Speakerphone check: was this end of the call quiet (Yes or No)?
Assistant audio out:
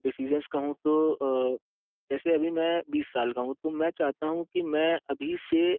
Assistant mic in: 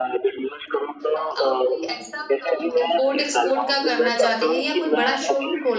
No